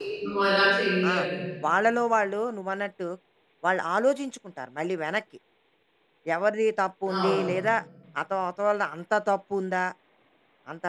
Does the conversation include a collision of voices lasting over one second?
No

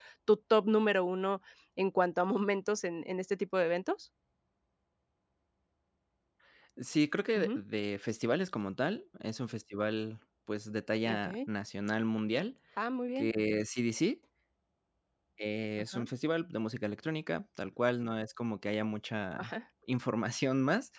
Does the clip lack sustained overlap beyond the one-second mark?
Yes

